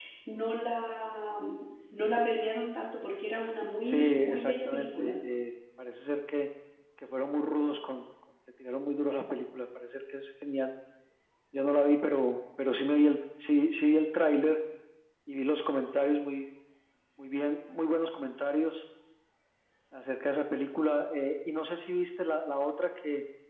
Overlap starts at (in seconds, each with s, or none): 3.8 s